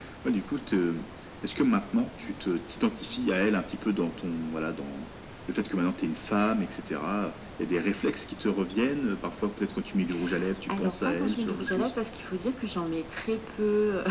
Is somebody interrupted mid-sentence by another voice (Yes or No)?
Yes